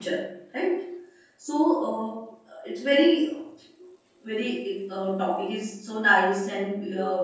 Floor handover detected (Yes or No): Yes